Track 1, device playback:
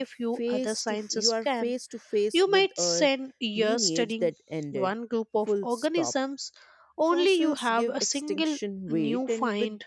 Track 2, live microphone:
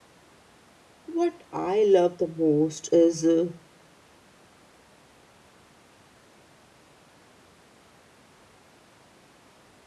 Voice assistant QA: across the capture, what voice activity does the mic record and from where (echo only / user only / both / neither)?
user only